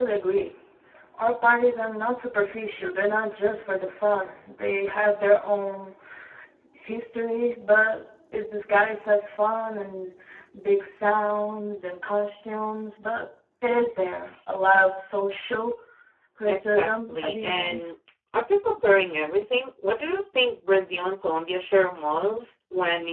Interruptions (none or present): present